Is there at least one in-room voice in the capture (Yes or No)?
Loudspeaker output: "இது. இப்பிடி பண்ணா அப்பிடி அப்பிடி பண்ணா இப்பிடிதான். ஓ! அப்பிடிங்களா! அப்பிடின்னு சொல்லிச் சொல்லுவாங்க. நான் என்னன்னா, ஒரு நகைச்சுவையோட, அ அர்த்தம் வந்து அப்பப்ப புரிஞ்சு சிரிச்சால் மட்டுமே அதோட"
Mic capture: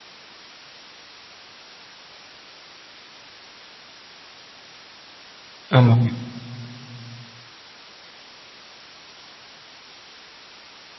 Yes